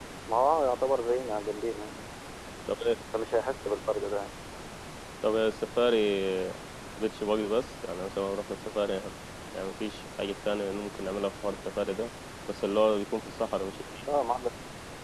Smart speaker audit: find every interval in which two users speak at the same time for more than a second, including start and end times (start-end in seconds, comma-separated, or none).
none